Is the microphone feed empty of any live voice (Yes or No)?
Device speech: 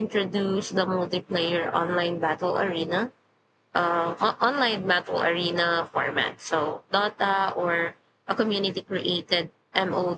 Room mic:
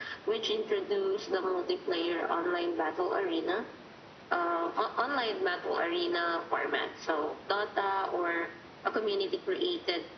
Yes